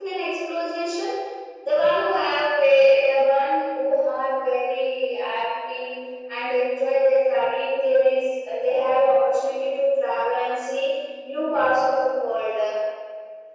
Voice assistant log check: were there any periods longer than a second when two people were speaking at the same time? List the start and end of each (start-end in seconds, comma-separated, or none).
none